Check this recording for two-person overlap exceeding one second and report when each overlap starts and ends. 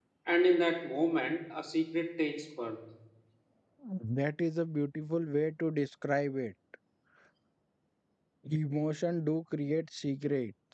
none

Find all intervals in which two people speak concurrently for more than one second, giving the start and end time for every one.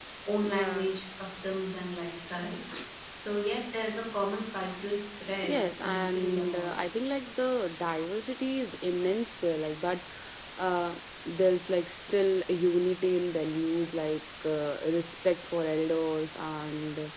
5.5-6.8

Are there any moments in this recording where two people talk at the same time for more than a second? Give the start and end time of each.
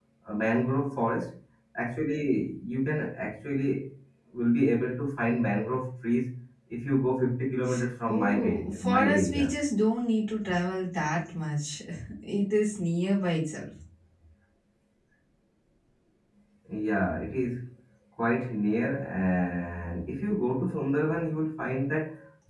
8.1-9.5

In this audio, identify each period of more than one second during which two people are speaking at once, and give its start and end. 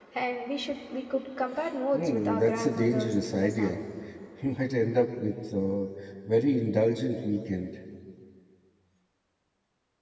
1.9-3.8

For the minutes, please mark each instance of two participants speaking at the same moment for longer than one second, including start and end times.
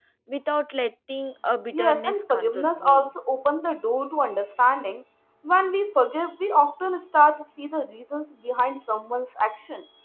1.7-3.1

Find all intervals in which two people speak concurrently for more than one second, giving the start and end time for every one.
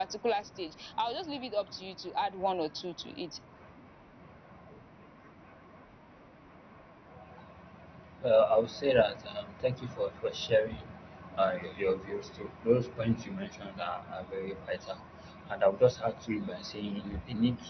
none

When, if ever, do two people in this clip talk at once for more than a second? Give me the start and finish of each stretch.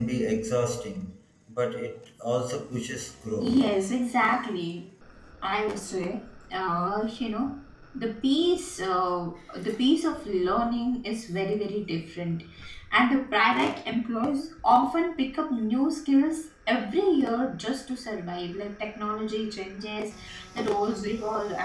none

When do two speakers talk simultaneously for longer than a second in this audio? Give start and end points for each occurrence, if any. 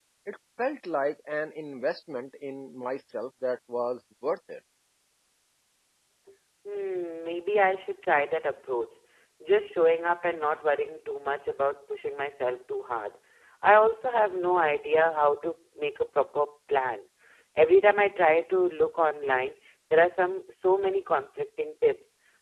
none

